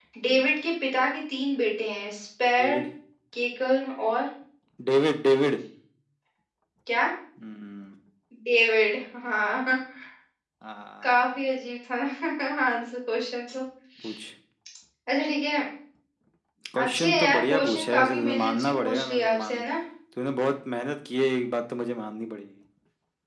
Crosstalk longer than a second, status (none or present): present